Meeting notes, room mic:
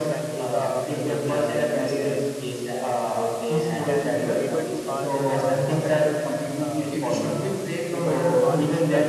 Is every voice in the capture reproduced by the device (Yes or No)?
No